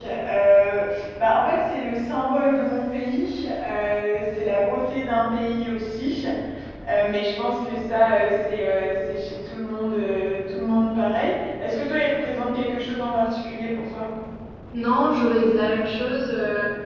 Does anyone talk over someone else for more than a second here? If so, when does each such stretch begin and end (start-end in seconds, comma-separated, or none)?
none